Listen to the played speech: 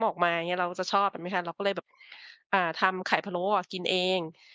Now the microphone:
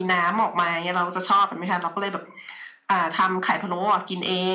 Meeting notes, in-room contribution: none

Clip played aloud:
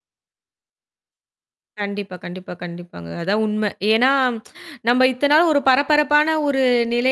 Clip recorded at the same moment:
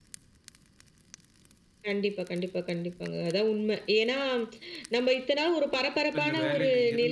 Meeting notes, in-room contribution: present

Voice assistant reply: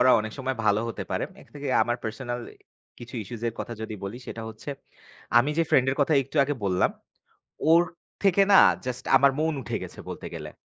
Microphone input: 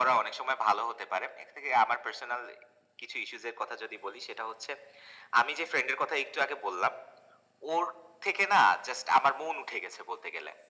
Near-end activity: none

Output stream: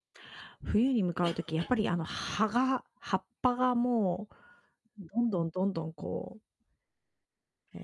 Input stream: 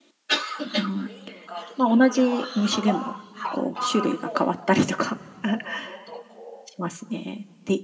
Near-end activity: present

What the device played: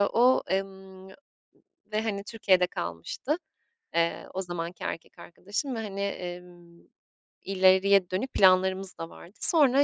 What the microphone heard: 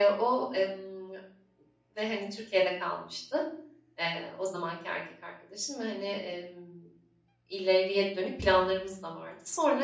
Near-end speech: none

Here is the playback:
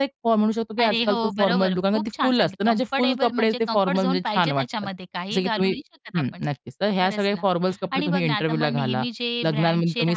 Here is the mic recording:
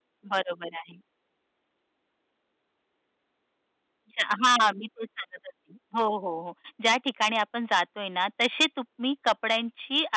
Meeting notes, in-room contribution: present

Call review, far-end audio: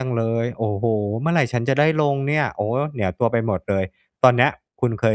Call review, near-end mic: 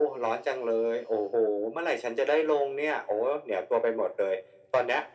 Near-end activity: none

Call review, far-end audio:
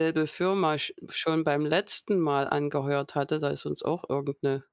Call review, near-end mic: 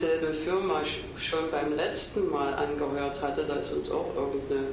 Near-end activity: none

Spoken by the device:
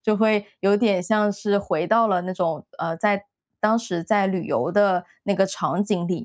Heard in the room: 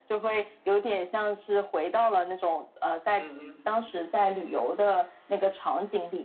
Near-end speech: present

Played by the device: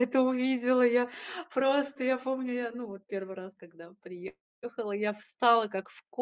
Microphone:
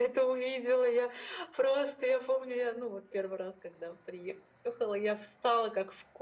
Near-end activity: none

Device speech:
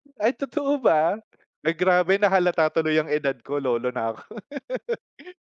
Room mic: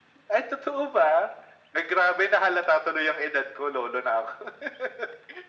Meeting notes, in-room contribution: none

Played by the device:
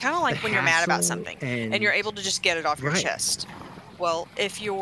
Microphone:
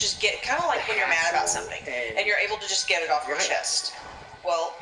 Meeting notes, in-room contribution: none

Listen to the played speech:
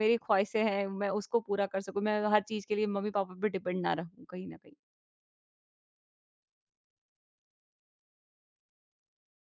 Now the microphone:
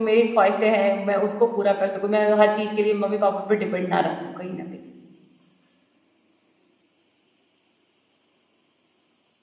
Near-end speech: none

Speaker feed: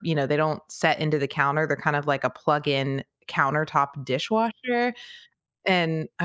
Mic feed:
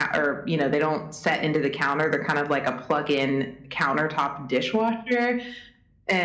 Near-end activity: none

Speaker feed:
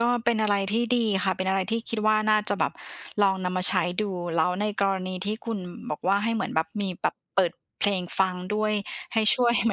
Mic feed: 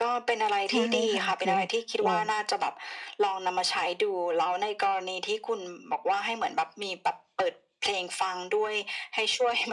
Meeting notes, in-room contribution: present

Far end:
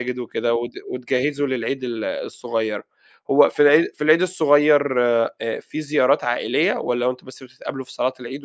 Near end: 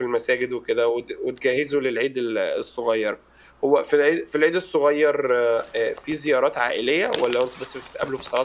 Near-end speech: none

